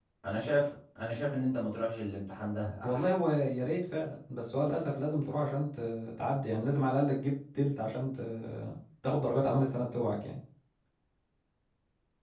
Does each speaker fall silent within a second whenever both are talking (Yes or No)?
Yes